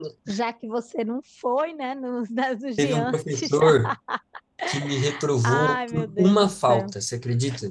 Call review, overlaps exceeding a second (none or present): present